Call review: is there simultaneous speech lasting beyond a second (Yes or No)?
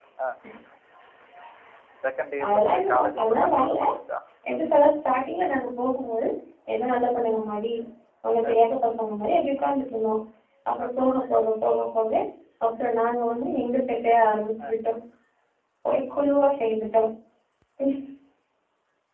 Yes